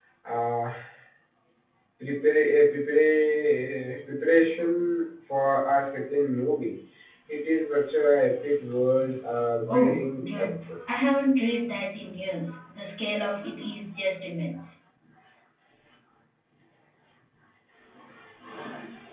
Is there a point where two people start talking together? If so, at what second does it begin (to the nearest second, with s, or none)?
10 s